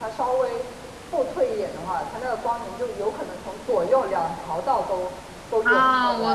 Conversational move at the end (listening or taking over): taking over